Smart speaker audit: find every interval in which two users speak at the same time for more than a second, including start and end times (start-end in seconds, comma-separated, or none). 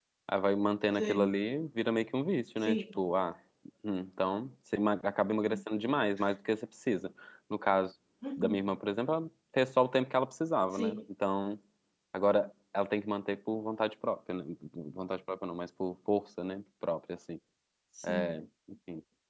none